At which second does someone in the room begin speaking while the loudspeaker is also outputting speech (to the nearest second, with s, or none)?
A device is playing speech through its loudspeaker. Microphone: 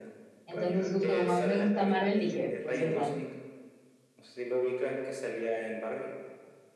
0 s